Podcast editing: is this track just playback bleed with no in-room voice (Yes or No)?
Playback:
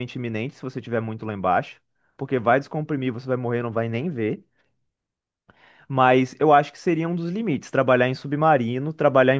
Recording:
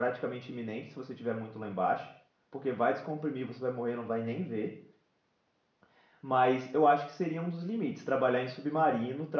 Yes